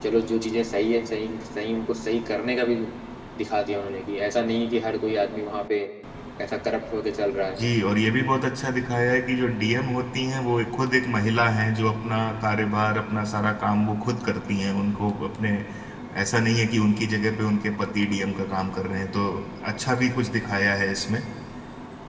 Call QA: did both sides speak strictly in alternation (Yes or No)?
Yes